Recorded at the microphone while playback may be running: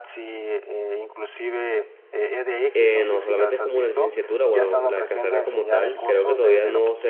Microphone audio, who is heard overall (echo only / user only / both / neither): both